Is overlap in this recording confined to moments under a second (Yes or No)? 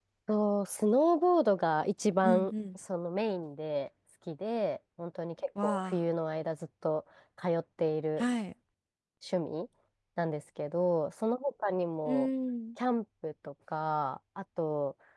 Yes